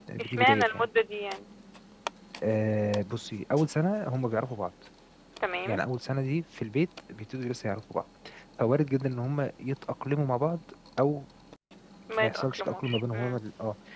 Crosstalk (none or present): present